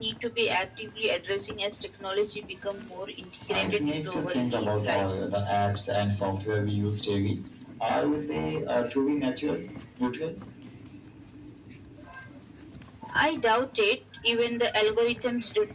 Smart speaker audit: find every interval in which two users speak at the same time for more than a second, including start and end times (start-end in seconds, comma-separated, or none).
3.5-5.1